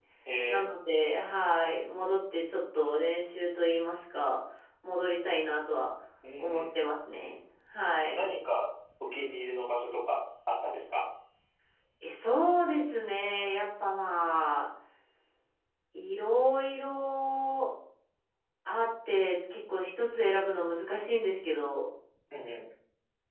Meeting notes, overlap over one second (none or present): none